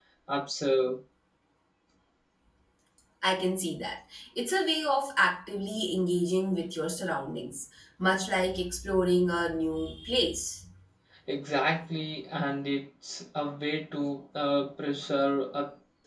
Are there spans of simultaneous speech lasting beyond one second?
No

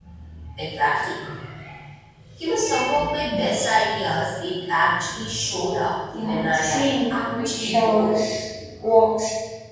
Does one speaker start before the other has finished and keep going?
Yes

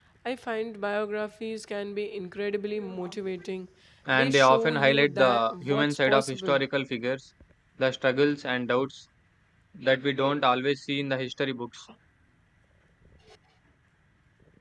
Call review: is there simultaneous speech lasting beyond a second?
Yes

